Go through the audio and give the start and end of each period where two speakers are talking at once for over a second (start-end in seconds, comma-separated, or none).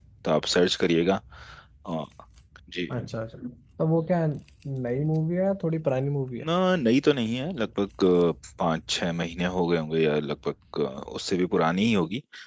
none